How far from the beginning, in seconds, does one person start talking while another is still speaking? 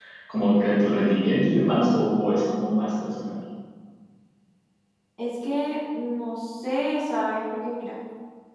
none

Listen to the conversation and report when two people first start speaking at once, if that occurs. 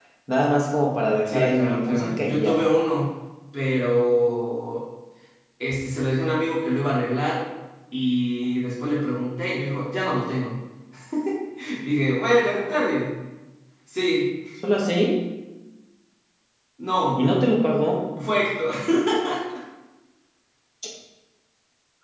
1.3 s

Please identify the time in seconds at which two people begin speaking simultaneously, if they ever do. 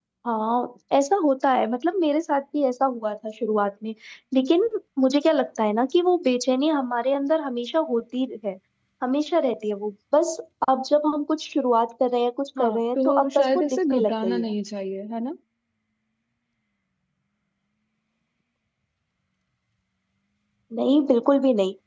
12.6 s

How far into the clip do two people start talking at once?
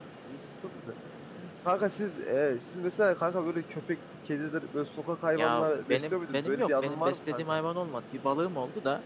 5.3 s

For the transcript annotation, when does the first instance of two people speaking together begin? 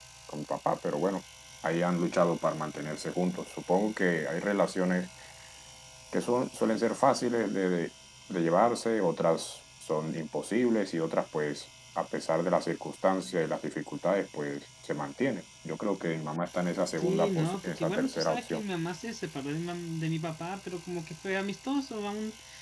17.0 s

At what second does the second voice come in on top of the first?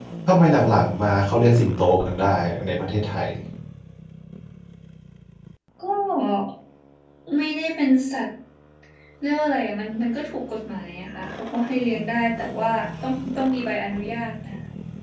none

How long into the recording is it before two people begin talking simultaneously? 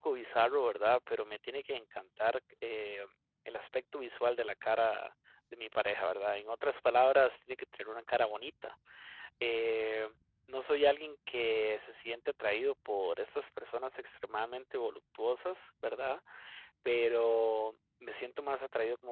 none

